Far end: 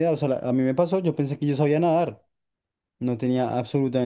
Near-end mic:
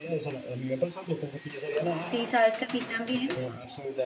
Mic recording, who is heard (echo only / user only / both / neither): both